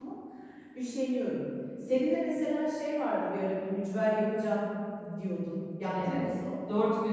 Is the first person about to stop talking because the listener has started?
Yes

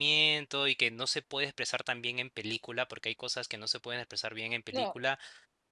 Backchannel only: Yes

